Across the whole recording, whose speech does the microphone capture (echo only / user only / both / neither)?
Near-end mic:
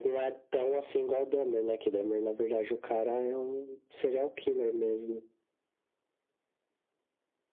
echo only